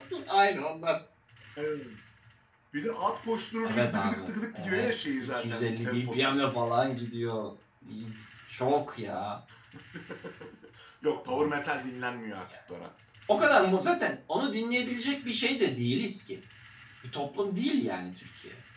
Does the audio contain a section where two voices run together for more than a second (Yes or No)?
Yes